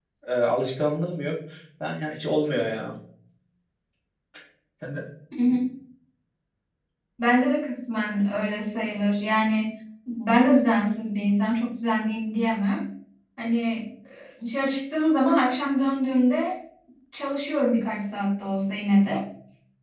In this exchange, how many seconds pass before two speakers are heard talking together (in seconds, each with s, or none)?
none